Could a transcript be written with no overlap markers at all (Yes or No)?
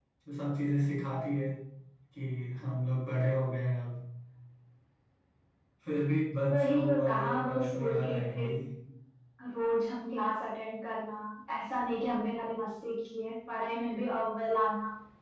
No